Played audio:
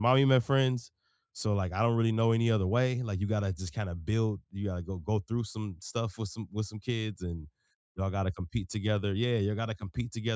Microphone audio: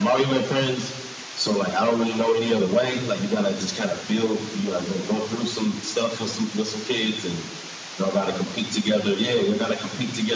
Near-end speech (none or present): none